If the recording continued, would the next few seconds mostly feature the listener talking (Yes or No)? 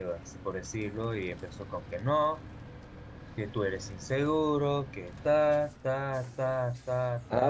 Yes